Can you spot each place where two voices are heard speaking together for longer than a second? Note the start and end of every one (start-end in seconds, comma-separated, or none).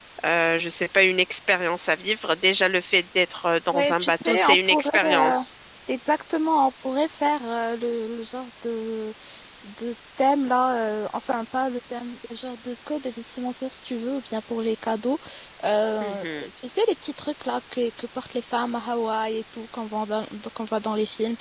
3.7-5.4